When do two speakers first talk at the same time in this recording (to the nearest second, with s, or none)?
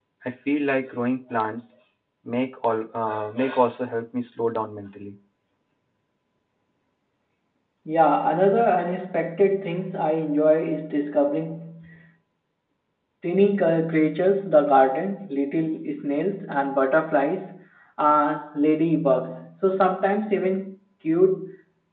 none